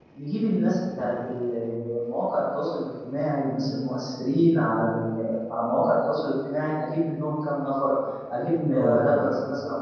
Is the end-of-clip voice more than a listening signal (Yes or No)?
No